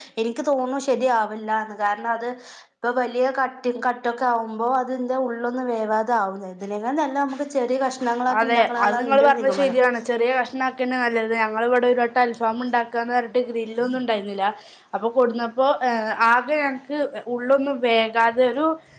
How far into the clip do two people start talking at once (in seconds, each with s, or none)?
8.3 s